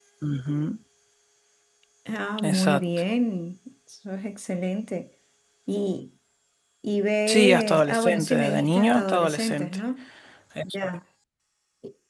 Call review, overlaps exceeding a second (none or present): present